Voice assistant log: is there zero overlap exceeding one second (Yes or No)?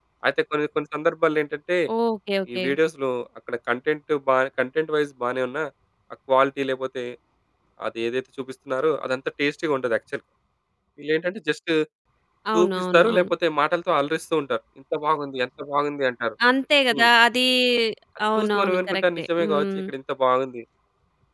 No